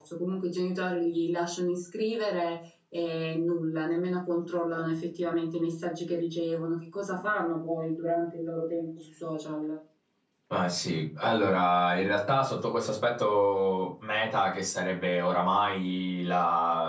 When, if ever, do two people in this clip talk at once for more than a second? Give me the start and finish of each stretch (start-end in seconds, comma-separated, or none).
none